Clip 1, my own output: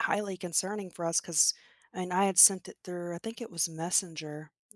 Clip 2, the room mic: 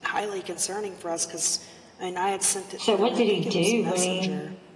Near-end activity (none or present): present